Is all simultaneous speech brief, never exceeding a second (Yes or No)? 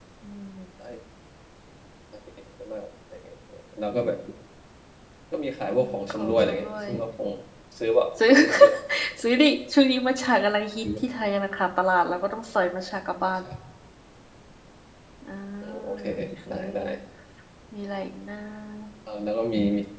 No